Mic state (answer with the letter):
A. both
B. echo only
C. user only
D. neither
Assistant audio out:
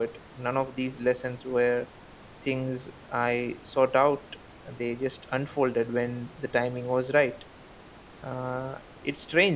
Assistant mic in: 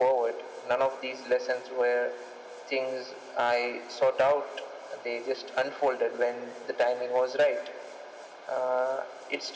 B